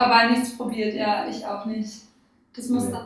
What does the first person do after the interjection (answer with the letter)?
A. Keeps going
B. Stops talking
A